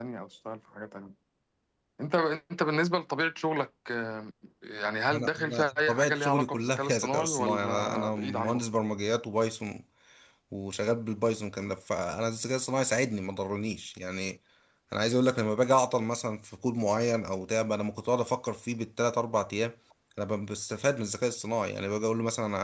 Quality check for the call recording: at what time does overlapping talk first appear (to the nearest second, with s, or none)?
5 s